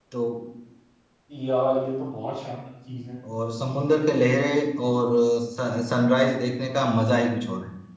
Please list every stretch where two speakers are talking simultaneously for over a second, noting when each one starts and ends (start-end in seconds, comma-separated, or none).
none